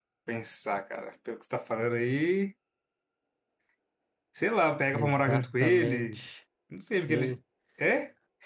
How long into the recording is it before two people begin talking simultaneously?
4.9 s

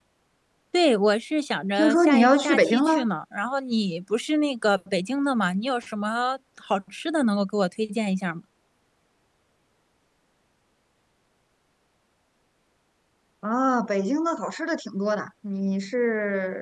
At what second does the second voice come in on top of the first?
1.8 s

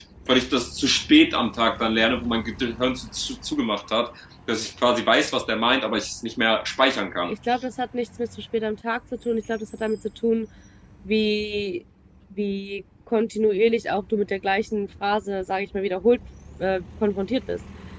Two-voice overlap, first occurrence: none

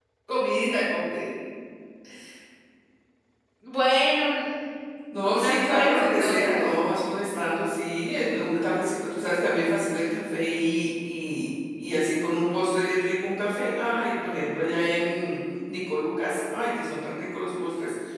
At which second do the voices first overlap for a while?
5.2 s

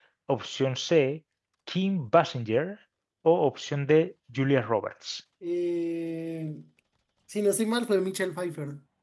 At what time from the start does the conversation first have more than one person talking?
none

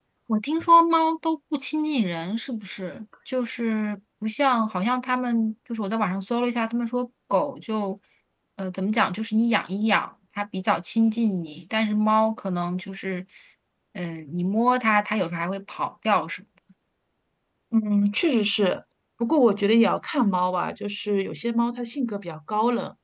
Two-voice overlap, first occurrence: none

